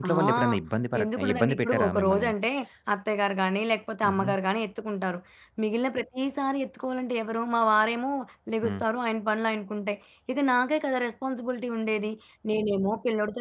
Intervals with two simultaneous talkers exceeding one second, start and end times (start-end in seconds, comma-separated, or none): 1.0-2.3